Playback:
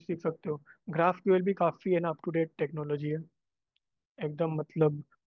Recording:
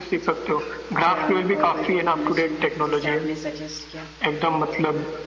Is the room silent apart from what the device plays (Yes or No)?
No